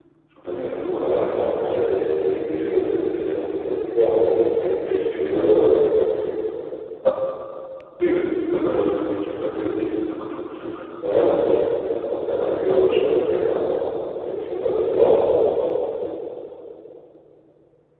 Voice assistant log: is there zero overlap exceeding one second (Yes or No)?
No